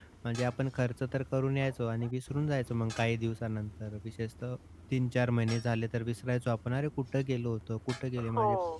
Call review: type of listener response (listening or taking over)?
taking over